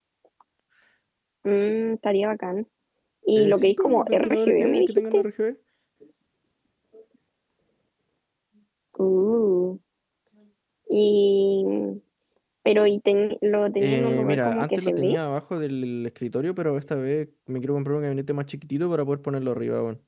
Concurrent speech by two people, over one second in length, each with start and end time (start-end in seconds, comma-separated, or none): 3.4-5.2, 13.7-15.2